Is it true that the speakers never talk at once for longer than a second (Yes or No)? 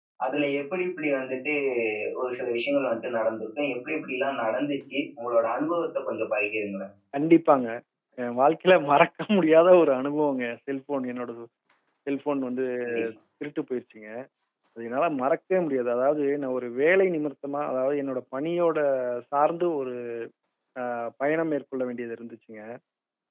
Yes